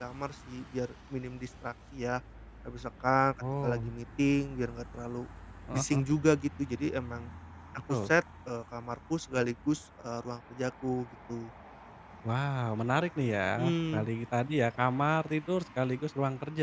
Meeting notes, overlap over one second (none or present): none